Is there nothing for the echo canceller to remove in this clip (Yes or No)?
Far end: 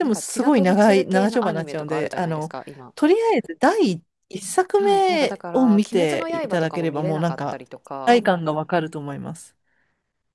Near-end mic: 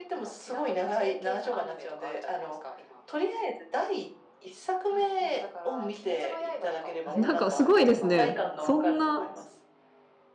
No